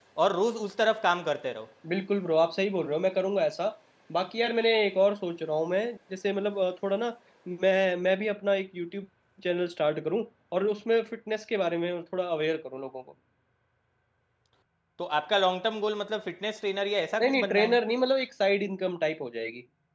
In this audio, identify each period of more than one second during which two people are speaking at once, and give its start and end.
none

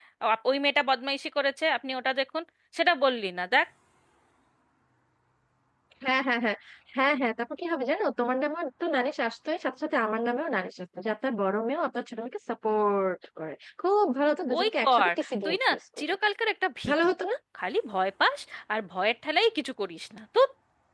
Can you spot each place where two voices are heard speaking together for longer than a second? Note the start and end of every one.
14.6-16.2

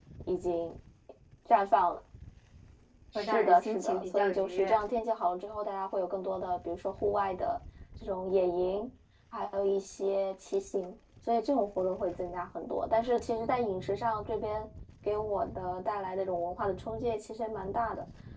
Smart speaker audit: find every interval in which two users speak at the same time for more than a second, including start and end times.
3.1-4.8

